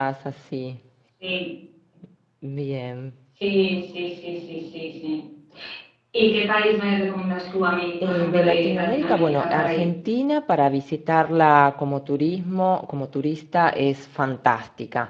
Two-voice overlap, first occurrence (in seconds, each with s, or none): 8.0 s